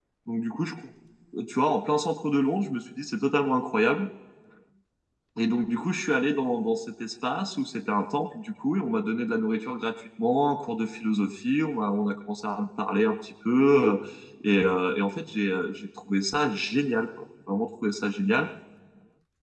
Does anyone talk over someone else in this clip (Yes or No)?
No